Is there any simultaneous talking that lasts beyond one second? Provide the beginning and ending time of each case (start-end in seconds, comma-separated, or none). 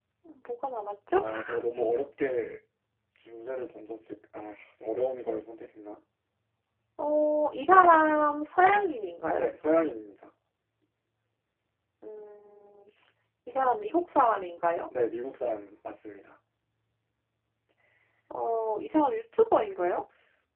none